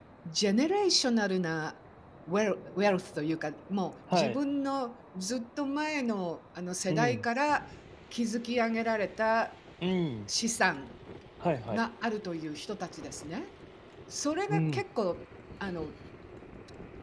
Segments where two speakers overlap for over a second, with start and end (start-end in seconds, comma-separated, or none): none